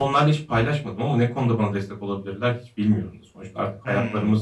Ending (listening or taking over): listening